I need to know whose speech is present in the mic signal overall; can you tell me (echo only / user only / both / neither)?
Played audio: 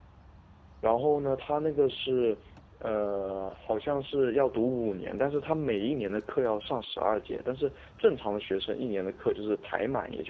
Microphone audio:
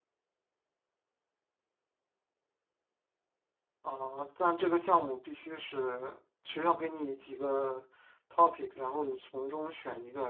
user only